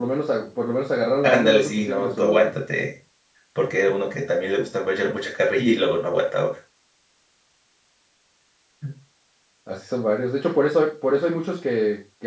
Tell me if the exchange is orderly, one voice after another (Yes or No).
No